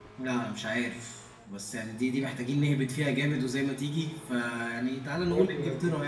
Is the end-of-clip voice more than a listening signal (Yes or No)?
No